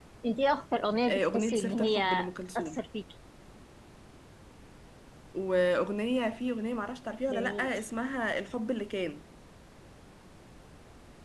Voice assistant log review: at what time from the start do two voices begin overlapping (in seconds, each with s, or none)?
1.1 s